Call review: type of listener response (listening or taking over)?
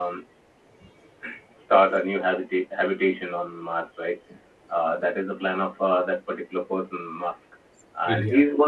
listening